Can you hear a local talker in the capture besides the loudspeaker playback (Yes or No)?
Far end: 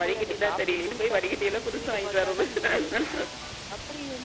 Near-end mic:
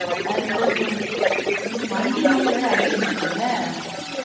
Yes